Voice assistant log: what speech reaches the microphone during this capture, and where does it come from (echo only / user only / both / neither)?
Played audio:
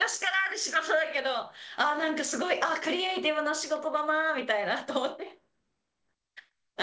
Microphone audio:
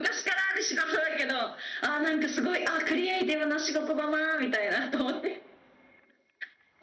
echo only